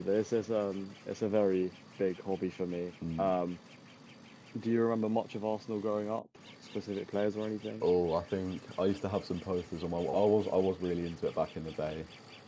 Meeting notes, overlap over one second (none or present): none